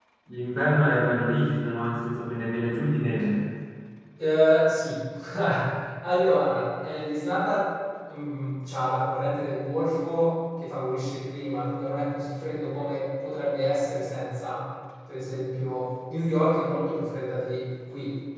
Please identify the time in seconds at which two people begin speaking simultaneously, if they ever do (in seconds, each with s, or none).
none